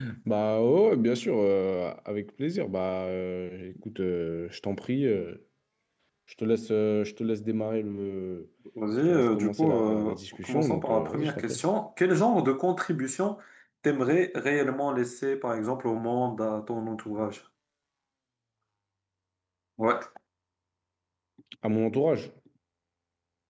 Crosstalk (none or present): present